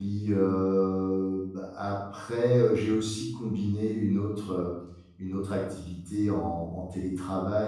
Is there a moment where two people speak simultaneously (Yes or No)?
No